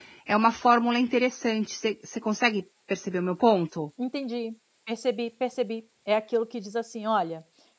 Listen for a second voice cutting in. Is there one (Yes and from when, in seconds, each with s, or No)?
No